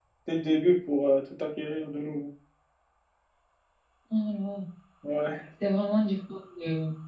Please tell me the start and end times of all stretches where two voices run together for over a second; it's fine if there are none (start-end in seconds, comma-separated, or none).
none